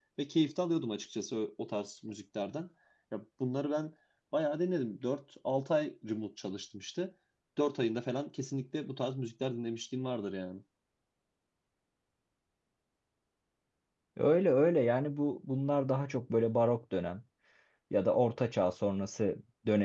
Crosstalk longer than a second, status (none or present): none